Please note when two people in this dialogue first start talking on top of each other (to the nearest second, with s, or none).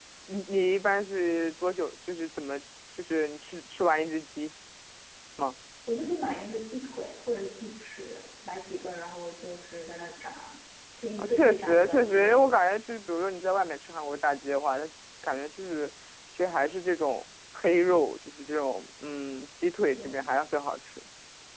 11 s